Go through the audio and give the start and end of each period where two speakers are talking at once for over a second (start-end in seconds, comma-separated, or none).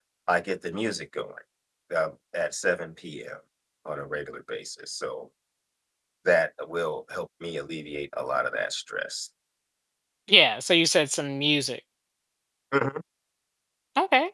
none